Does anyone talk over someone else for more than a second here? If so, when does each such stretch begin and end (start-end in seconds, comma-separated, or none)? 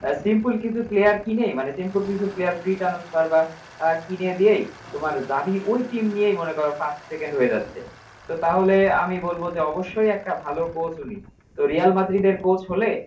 none